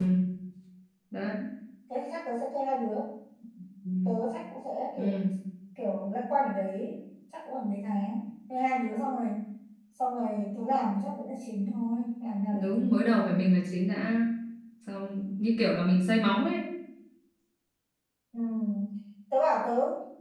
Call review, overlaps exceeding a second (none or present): none